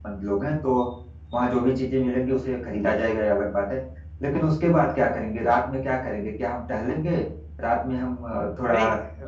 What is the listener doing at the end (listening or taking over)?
taking over